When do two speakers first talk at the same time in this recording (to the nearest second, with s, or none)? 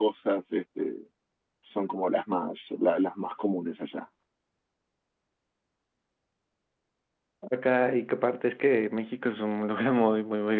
none